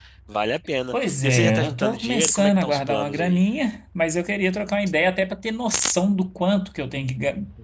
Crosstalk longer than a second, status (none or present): present